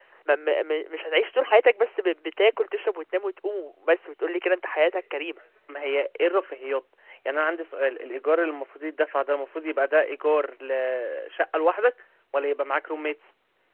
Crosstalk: none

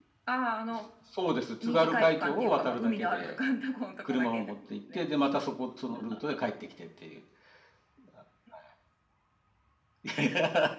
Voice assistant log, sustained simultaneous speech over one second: present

